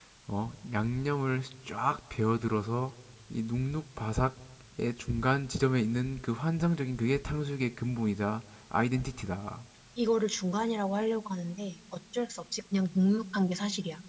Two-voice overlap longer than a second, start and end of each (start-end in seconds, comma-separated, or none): none